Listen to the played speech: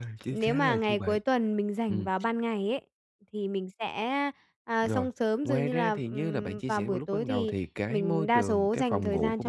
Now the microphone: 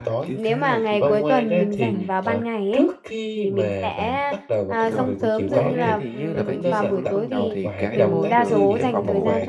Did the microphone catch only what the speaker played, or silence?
No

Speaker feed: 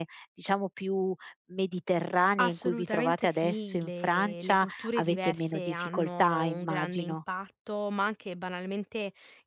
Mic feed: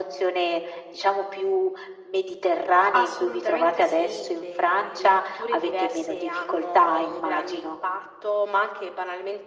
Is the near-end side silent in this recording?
Yes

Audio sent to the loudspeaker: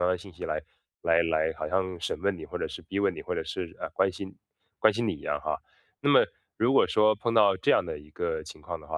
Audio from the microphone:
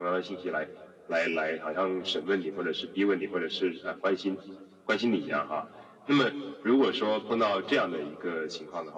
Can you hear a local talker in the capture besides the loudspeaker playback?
No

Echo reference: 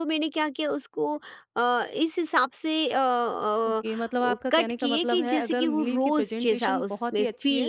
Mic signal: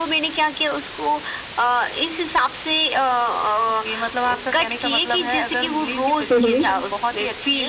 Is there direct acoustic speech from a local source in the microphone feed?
Yes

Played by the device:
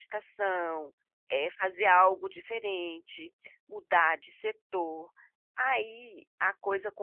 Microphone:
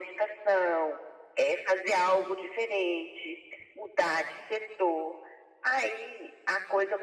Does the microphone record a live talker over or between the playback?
No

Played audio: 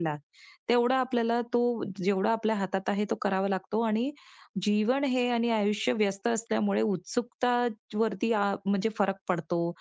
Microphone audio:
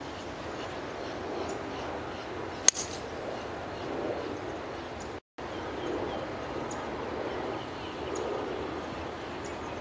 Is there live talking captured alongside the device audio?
No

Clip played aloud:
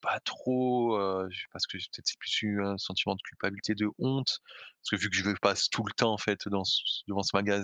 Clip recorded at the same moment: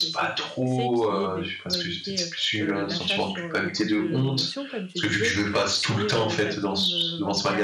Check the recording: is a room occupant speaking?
Yes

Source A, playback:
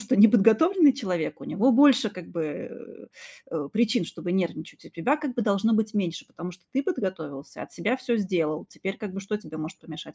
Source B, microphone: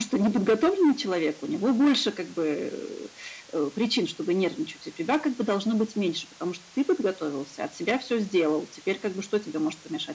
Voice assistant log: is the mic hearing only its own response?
Yes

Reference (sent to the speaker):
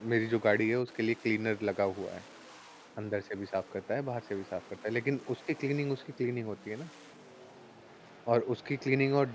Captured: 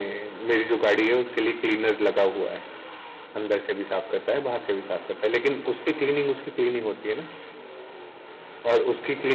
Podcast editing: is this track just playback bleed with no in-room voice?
Yes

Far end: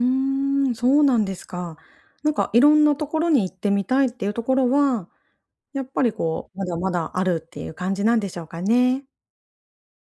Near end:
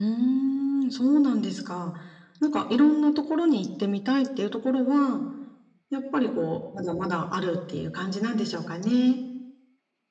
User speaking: No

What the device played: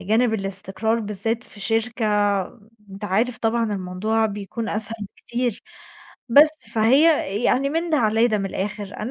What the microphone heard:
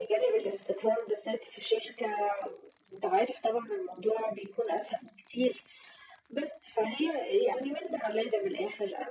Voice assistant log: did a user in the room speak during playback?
No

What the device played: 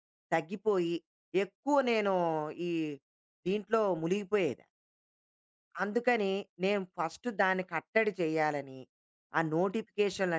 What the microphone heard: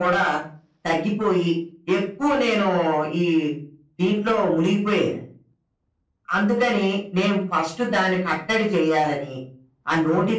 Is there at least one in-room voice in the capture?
No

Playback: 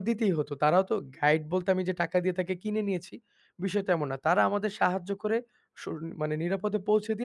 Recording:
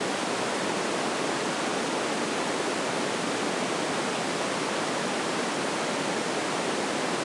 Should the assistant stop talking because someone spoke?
No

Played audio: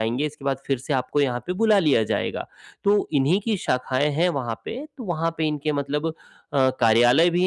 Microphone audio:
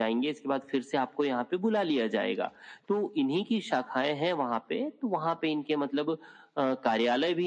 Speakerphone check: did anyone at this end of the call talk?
No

